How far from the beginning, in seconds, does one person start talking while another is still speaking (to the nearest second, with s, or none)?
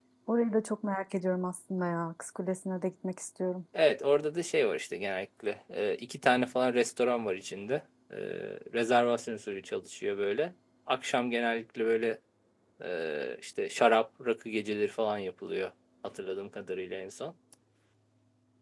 none